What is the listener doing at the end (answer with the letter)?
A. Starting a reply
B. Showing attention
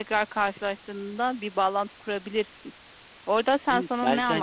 A